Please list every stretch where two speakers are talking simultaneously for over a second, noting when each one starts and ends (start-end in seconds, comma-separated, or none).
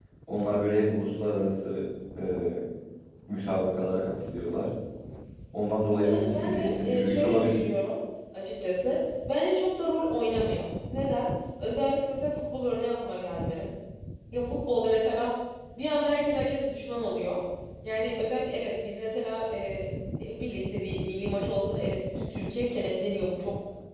6.0-7.6